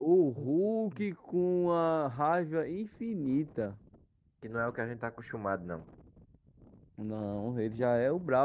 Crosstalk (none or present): none